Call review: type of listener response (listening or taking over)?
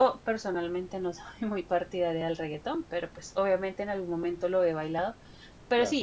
listening